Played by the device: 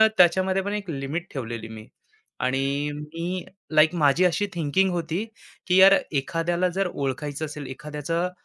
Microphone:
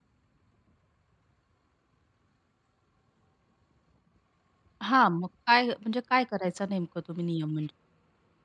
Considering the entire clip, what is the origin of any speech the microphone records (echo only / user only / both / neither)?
user only